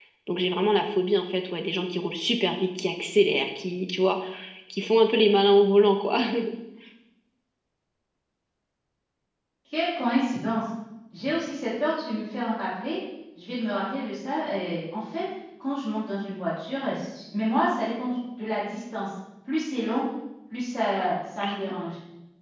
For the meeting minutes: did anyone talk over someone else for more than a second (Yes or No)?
No